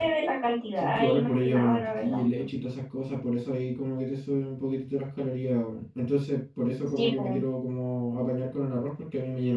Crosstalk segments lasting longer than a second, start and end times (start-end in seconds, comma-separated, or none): 0.8-2.2